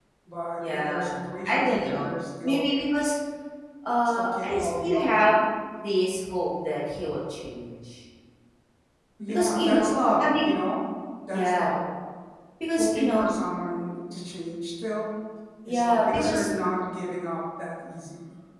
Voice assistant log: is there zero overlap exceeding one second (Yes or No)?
No